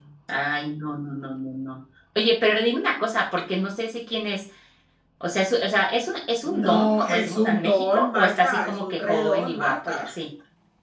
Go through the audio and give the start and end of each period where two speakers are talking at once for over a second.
6.6-10.0

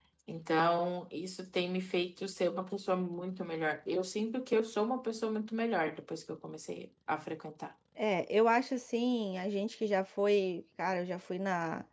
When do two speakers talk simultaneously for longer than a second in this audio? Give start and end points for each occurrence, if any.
none

